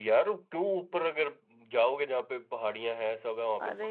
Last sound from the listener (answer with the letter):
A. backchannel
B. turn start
B